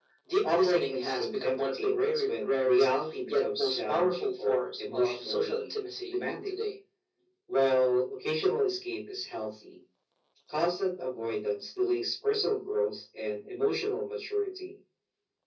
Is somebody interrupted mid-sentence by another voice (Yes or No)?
Yes